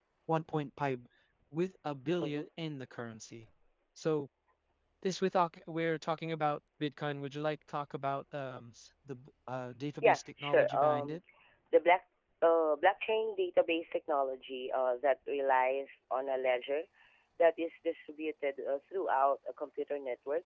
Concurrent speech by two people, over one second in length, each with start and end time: 10.0-11.2

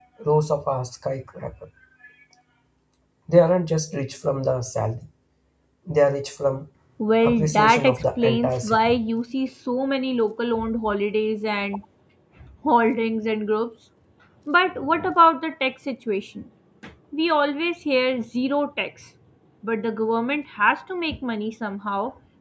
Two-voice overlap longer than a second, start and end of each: 7.2-9.0

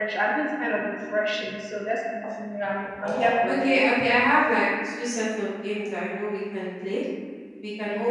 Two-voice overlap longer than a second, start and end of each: none

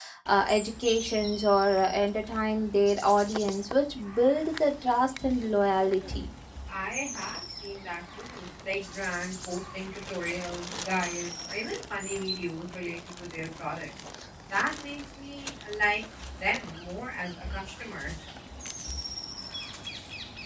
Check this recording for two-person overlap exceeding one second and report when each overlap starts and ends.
none

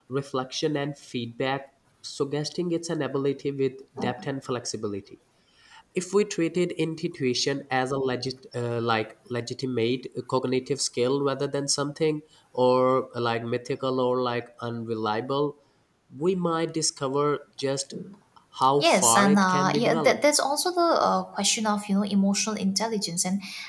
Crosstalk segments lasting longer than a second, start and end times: 18.8-20.2

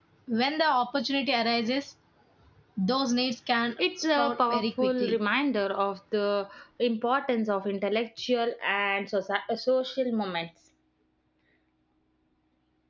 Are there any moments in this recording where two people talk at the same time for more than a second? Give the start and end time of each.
3.8-5.2

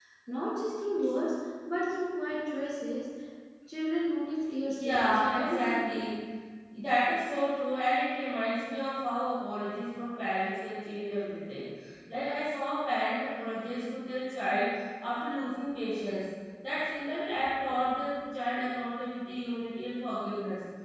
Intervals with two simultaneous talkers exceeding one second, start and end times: 4.7-6.1

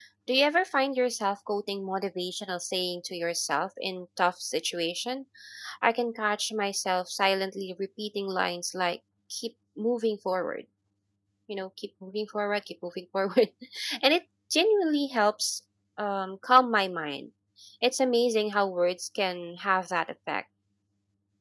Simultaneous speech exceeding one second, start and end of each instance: none

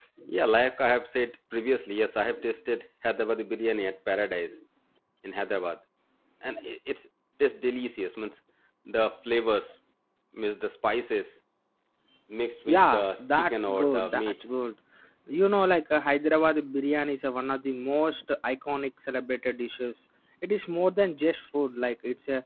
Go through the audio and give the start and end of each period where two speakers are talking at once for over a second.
12.7-14.4

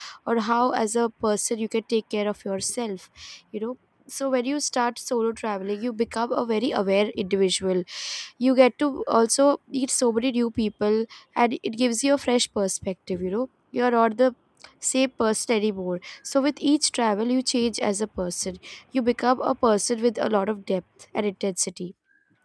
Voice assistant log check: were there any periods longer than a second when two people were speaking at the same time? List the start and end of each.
none

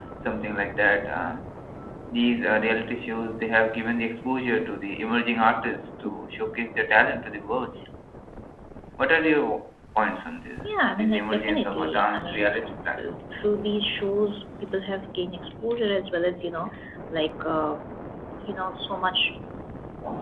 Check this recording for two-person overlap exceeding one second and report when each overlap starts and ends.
10.8-12.6

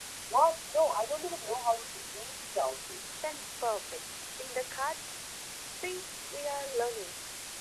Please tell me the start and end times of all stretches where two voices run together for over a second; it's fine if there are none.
none

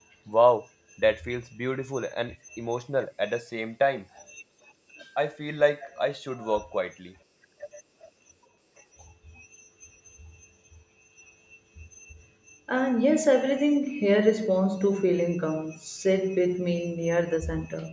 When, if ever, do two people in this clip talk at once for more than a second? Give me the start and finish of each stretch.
none

